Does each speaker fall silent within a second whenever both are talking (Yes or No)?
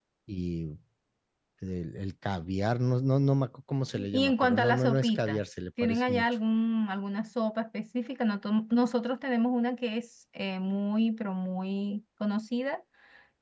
No